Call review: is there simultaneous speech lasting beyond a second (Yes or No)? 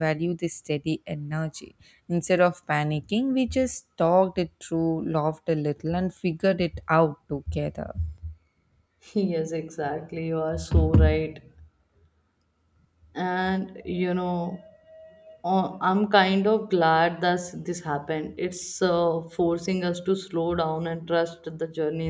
No